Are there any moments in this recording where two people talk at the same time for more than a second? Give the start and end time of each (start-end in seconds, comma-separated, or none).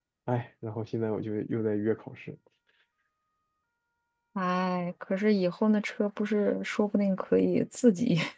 none